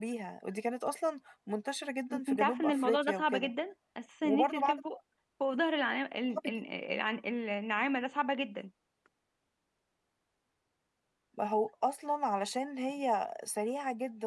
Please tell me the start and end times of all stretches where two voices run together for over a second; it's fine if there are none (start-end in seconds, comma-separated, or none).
2.1-3.5